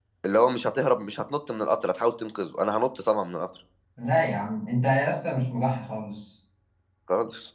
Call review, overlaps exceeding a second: none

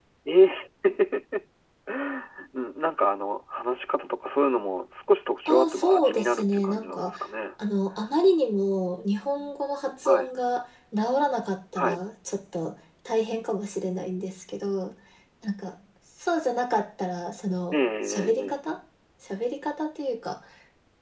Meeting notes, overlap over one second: present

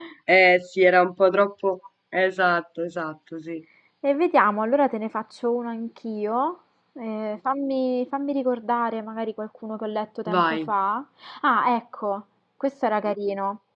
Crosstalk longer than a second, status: none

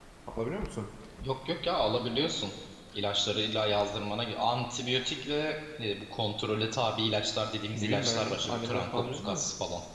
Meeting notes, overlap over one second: present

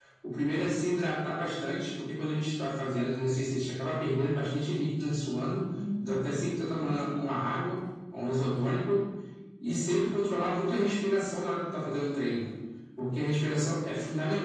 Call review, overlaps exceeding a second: present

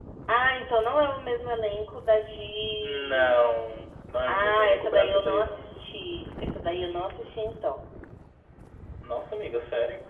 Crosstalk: present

